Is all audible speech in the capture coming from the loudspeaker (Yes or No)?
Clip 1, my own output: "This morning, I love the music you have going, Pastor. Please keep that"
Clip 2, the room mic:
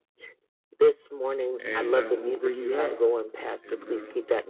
No